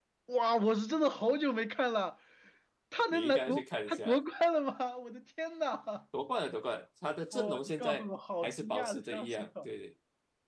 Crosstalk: present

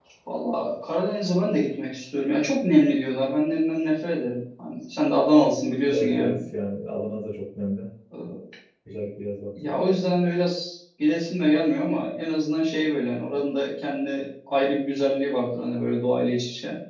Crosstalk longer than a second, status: none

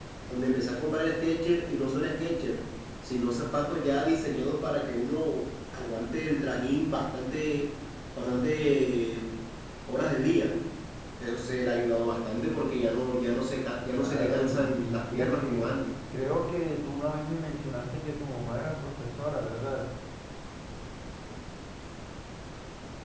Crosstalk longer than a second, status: present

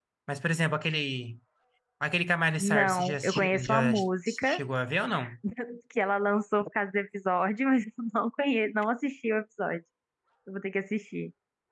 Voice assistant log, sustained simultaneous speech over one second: present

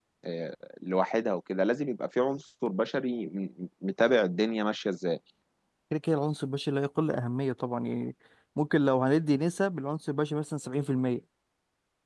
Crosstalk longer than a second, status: none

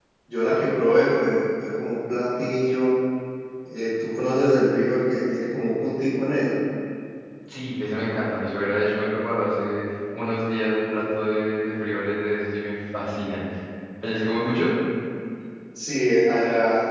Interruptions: none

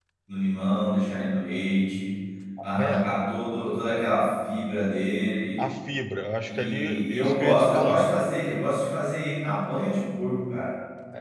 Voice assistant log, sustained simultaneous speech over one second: present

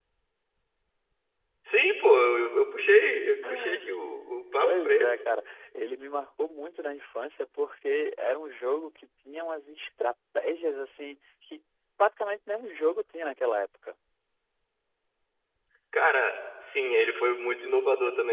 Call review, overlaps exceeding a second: none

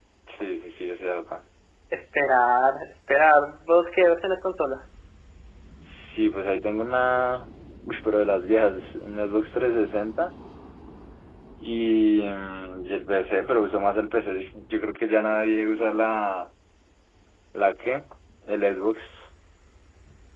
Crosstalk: none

